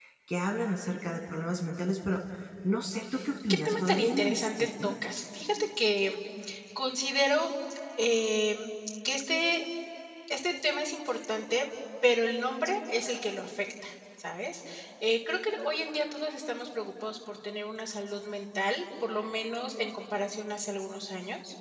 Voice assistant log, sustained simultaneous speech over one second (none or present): present